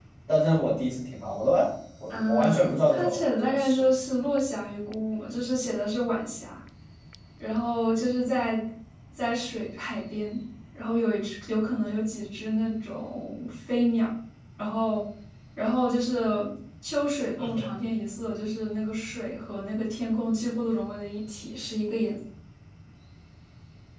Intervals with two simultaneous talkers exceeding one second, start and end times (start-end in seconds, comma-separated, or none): 2.1-3.8